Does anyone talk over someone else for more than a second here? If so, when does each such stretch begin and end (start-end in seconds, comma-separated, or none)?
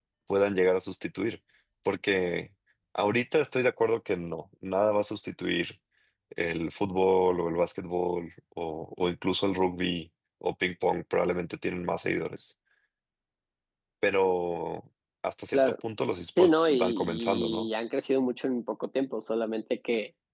16.4-17.7